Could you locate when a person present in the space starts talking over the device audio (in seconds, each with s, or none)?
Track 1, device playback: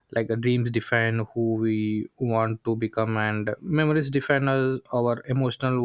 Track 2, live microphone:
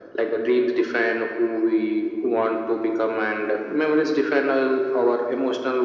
none